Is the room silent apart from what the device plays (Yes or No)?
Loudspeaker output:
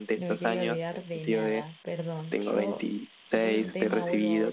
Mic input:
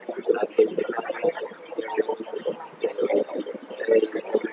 Yes